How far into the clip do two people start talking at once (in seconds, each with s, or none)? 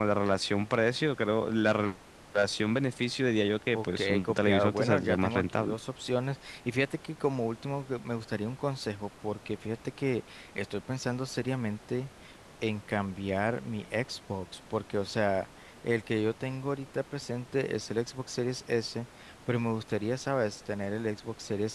3.7 s